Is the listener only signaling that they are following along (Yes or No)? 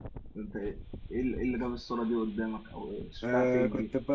No